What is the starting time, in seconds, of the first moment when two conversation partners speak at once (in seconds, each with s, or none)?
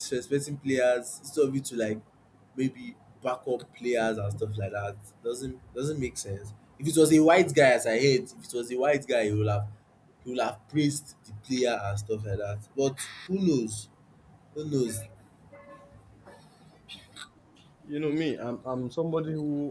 none